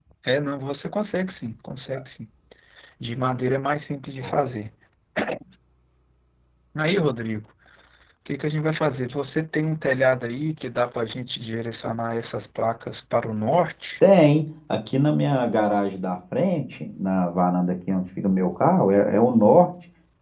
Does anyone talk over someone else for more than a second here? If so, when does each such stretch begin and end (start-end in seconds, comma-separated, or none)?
none